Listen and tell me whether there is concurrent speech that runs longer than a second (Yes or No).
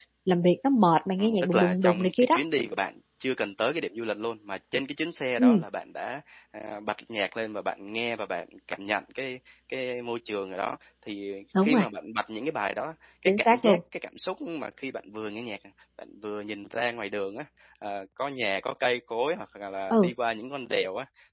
Yes